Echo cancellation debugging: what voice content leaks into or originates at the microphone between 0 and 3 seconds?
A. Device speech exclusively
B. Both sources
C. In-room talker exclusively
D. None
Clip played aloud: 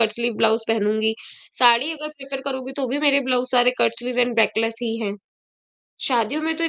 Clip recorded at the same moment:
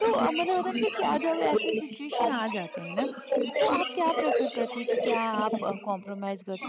B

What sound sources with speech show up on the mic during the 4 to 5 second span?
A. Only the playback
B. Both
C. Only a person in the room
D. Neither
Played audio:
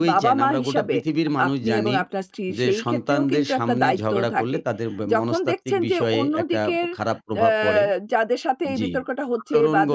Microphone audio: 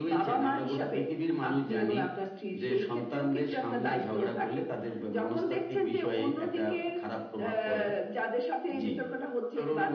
A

